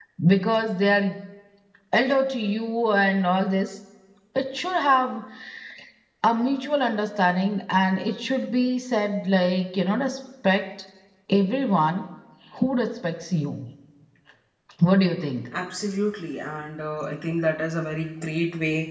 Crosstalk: none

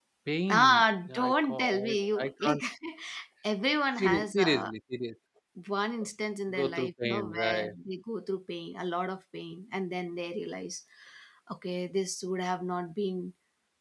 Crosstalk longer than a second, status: present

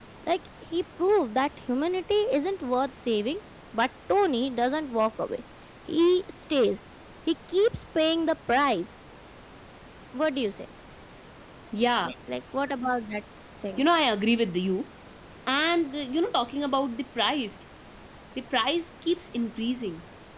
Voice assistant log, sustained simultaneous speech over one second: none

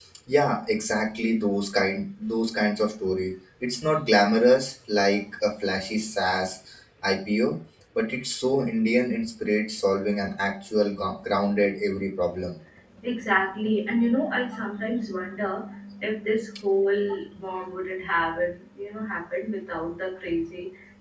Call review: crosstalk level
none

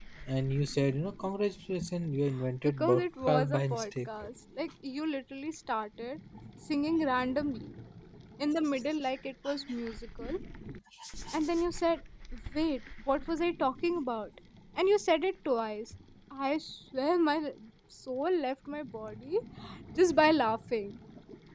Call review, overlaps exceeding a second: present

